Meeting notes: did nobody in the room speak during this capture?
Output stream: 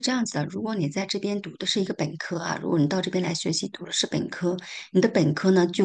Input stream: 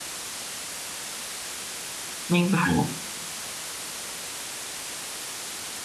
No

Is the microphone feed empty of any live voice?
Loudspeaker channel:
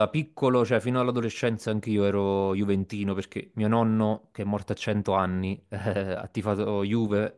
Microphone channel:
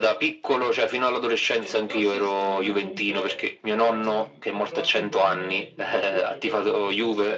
No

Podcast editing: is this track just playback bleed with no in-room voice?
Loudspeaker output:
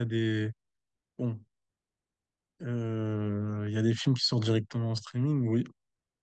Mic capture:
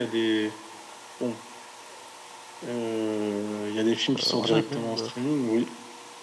No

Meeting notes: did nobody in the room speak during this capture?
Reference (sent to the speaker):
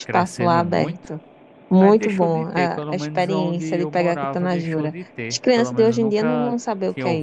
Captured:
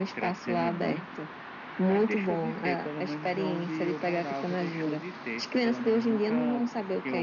Yes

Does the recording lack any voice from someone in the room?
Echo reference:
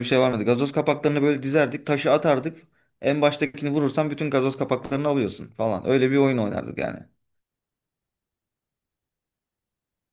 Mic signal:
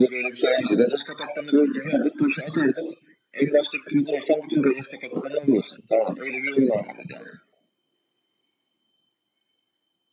Yes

